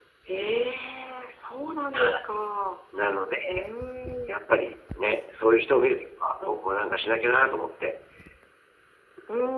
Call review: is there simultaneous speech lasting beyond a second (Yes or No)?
No